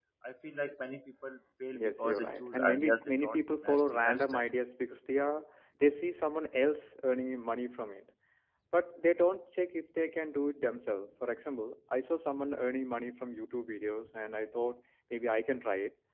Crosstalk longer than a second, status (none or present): present